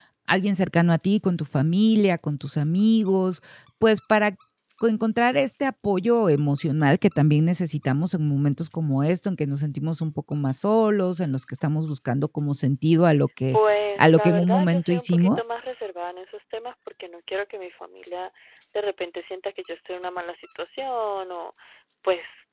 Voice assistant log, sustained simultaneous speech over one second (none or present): present